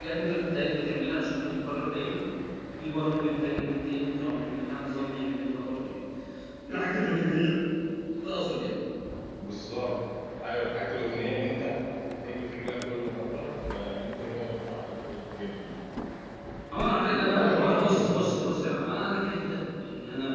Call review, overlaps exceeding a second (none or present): present